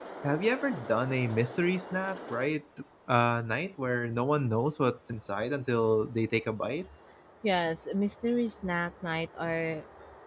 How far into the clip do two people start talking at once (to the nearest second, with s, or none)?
none